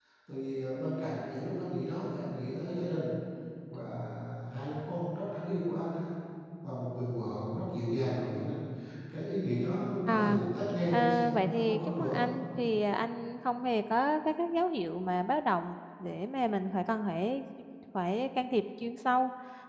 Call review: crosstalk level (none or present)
present